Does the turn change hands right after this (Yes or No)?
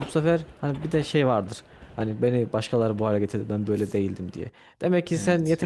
No